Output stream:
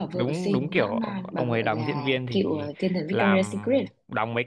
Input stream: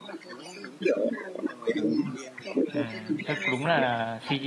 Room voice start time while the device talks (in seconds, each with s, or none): 2.7 s